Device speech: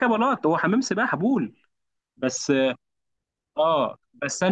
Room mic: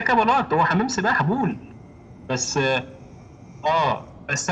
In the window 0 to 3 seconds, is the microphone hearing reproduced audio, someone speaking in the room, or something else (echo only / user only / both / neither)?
echo only